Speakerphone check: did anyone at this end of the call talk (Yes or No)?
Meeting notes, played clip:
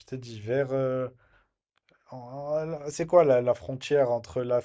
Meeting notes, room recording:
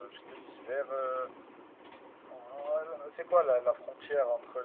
No